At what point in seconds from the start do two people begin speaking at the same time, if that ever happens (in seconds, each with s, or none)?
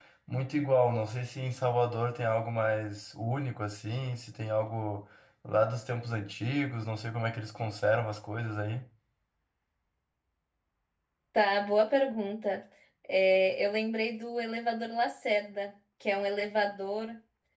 none